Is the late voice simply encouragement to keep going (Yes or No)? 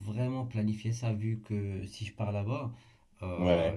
Yes